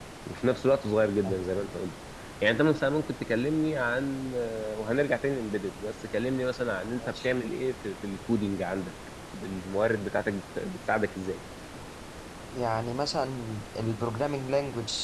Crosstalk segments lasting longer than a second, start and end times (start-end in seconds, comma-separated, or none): none